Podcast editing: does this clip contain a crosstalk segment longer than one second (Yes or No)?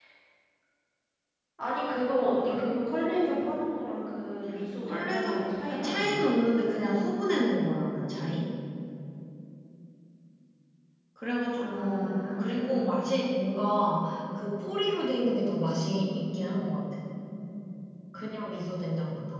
Yes